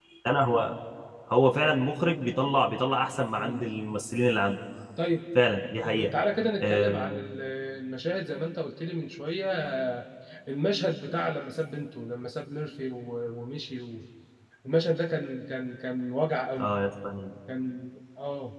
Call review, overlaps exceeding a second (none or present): none